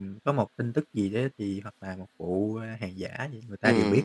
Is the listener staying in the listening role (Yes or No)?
No